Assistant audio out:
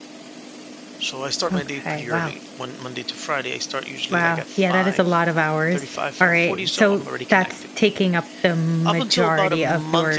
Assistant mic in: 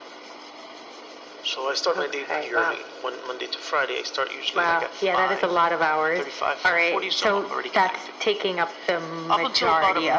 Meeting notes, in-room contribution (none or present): none